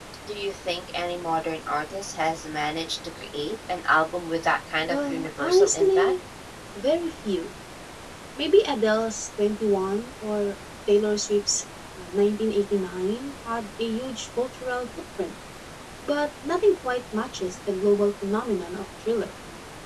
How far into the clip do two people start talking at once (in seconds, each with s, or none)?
4.8 s